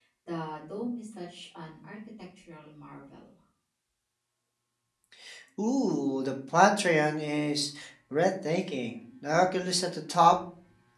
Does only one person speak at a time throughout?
Yes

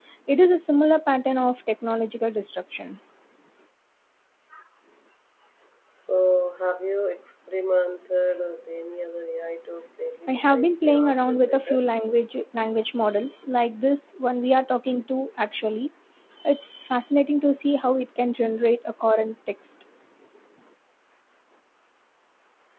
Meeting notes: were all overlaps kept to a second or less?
No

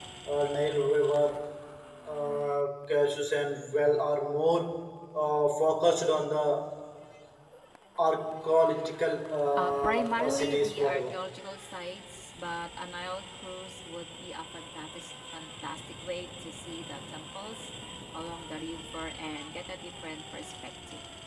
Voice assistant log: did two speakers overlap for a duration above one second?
Yes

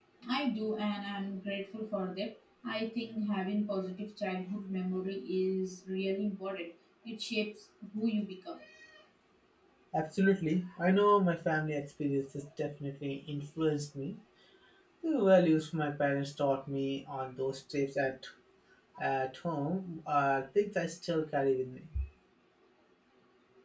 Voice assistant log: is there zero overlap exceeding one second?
Yes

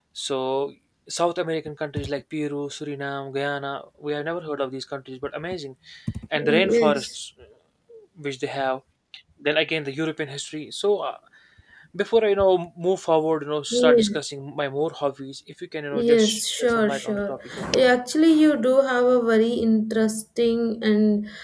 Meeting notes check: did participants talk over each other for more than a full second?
Yes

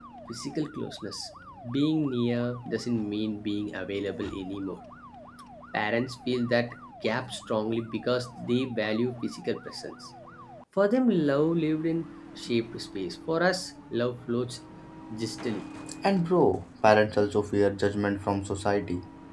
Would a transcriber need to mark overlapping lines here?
No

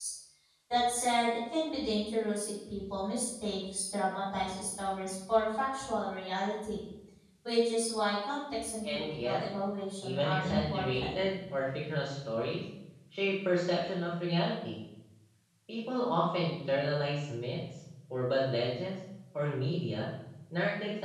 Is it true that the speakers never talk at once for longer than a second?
No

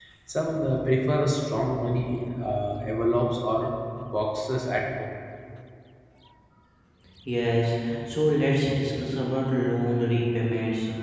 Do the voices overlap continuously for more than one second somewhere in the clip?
No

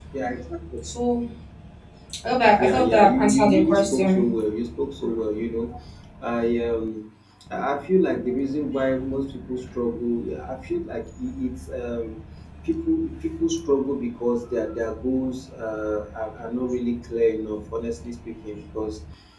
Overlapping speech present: Yes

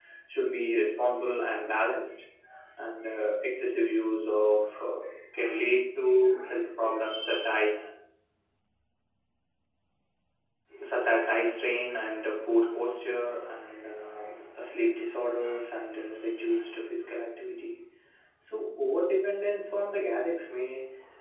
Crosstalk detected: No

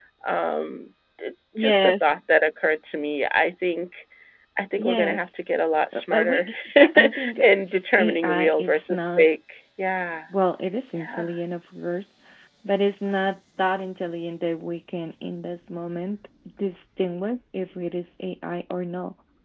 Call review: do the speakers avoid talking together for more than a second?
No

